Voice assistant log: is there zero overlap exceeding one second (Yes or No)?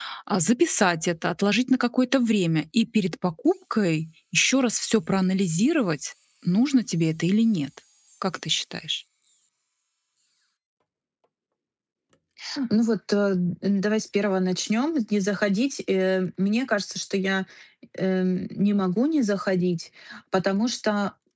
Yes